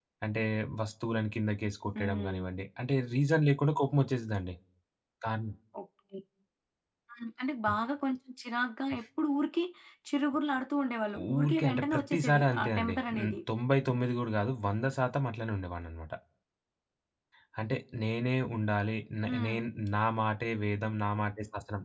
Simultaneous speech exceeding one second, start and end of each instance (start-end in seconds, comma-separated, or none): 11.3-13.4